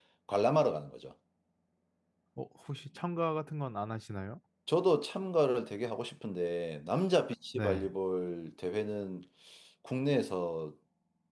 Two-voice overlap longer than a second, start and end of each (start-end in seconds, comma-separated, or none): none